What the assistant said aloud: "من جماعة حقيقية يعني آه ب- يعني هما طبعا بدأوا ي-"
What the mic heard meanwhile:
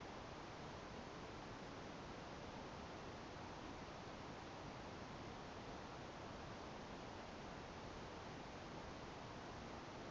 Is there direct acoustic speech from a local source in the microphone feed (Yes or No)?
No